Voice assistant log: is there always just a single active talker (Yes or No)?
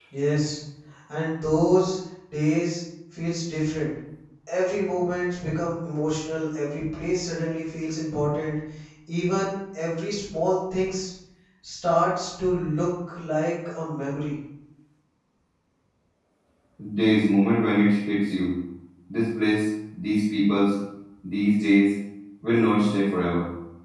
Yes